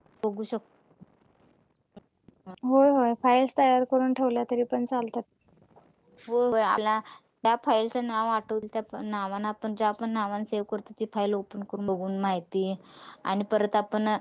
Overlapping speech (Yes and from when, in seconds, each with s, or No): No